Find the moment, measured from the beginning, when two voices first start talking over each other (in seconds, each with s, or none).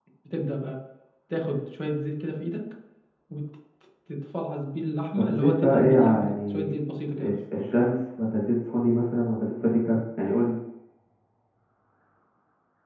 5.2 s